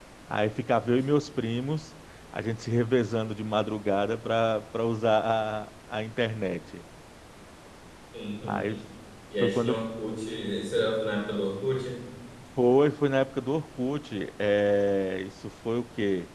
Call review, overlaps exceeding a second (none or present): none